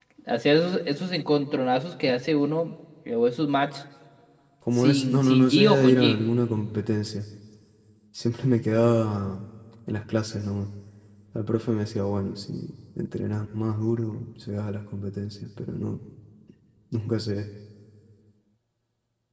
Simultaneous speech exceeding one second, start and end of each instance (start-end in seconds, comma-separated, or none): 4.7-6.2